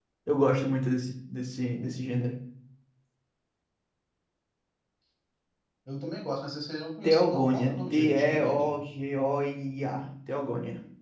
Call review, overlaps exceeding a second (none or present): present